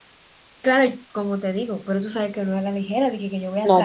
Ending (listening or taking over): taking over